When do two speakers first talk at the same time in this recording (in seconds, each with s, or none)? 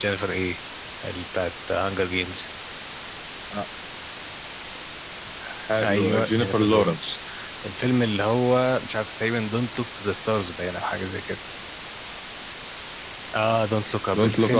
5.8 s